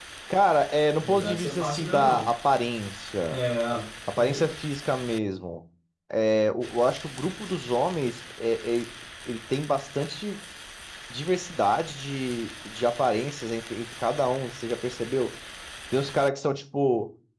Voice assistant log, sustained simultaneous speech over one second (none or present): present